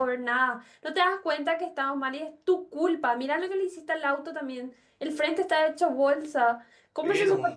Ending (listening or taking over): listening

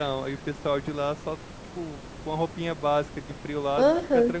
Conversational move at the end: taking over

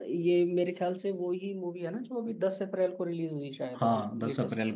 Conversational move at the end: taking over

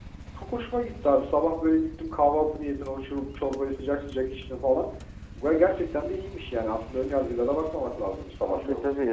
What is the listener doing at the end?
taking over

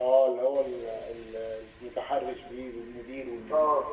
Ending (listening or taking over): taking over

